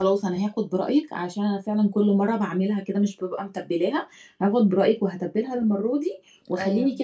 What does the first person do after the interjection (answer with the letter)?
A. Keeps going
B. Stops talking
A